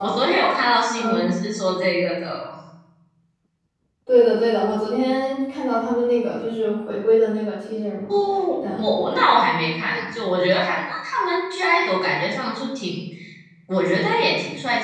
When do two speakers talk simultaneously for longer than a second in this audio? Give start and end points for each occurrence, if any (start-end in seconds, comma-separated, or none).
none